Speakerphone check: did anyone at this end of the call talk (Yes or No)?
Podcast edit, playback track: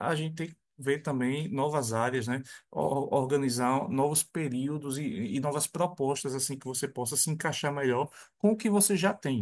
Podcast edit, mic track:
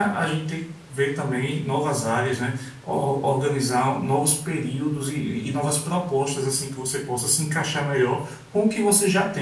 No